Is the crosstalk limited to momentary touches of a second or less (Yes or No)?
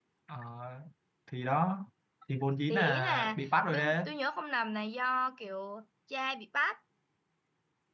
No